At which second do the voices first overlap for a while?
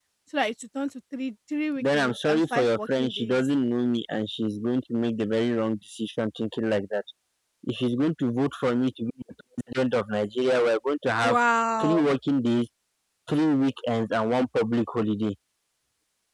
1.8 s

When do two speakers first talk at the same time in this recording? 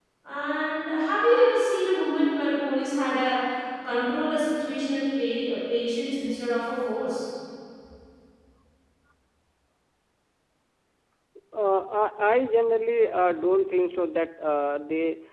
none

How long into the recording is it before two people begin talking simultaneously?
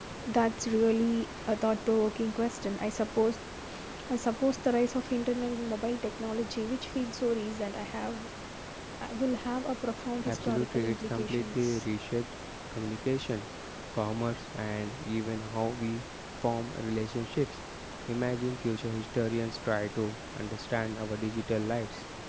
10.2 s

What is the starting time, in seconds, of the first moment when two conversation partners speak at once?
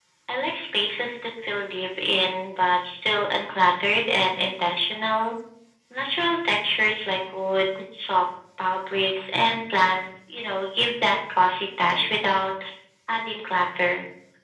none

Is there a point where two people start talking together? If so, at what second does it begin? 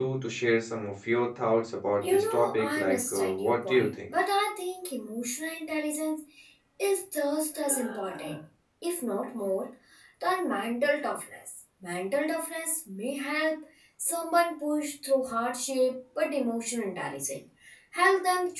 2.0 s

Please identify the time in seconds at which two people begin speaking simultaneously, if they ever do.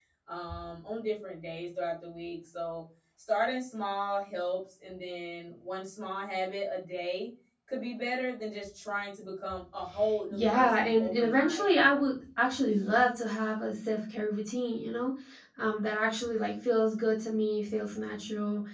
10.3 s

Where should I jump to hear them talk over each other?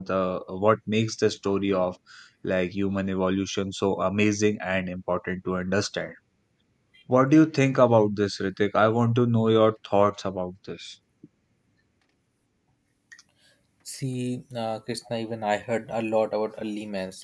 none

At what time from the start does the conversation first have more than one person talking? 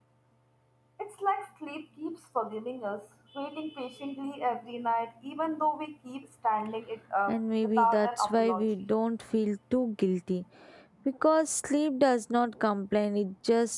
7.3 s

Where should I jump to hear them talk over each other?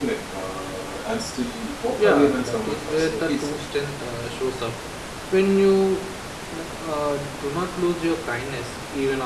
2.0 s

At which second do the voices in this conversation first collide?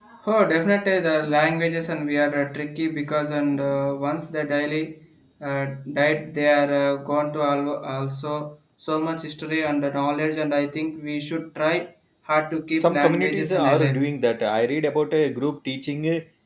12.8 s

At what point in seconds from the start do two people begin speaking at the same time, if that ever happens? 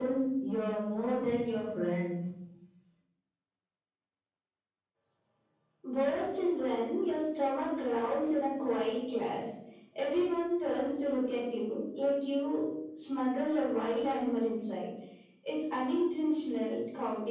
none

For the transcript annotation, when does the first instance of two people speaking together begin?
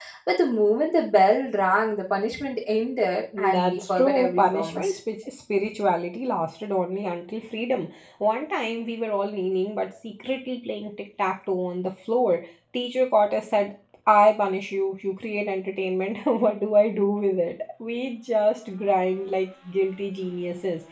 3.3 s

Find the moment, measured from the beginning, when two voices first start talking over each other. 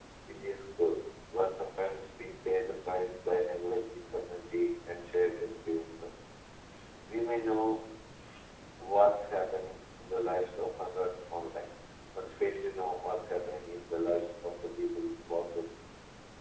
none

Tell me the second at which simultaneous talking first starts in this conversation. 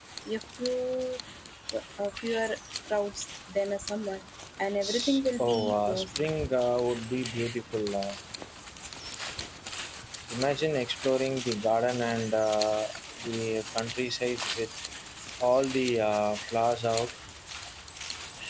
4.8 s

